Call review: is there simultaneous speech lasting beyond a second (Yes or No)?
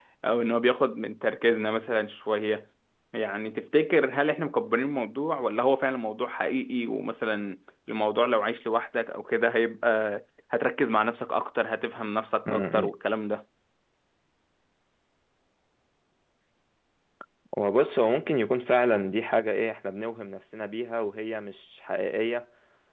No